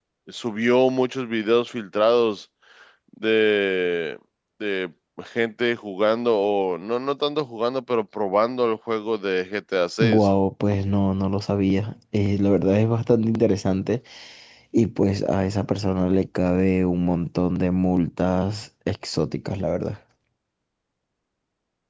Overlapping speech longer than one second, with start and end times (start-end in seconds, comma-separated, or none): none